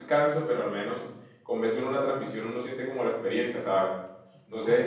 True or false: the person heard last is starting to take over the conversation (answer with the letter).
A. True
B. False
B